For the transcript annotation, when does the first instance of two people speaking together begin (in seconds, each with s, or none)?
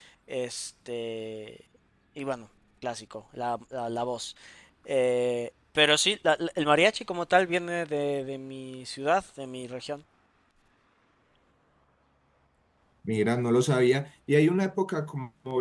none